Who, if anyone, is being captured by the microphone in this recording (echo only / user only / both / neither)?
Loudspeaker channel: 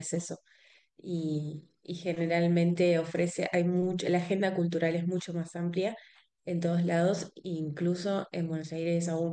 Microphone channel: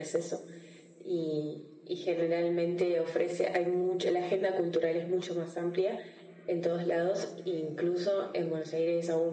echo only